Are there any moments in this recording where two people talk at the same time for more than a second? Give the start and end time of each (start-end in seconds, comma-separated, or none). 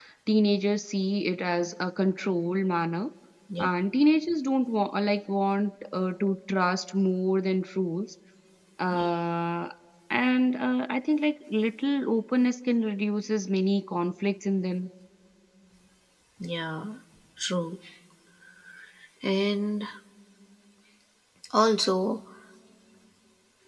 none